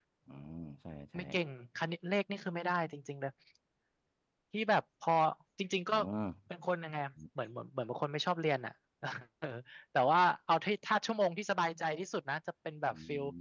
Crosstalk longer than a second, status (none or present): none